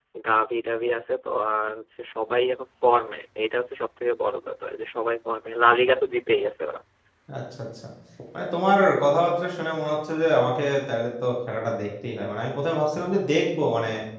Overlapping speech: No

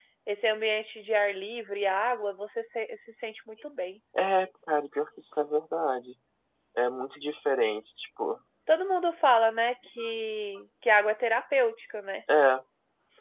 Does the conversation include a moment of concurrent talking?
No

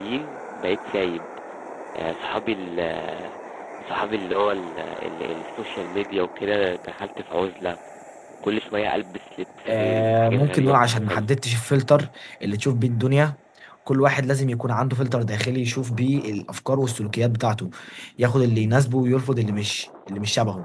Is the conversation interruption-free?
No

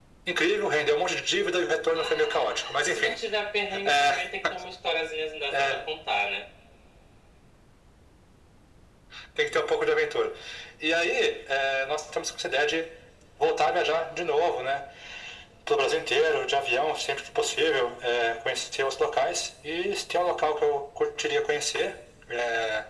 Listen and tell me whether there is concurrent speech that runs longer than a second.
Yes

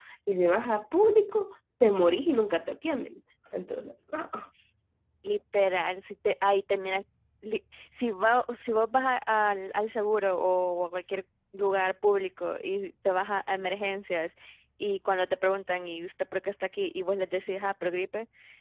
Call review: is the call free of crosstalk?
Yes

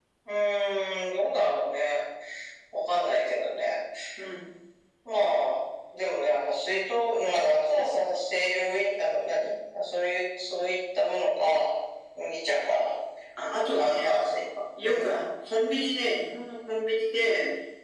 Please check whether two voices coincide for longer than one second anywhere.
No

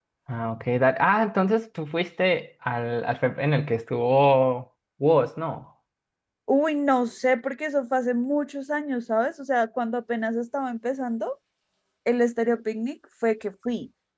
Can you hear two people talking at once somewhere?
No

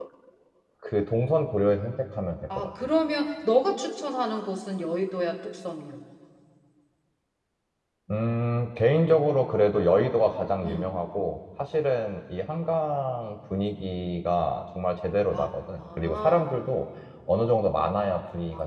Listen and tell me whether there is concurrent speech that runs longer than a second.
Yes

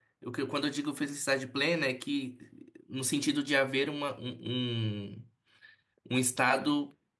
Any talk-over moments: No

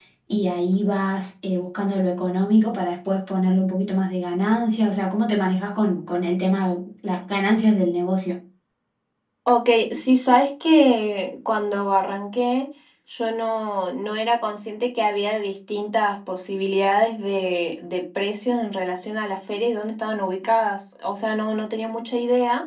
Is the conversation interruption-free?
Yes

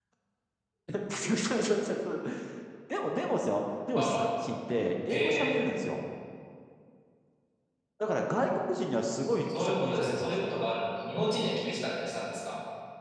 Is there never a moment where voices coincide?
No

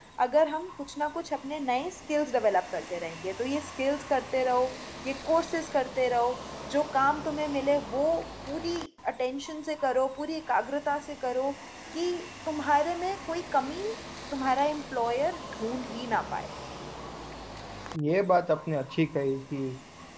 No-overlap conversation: Yes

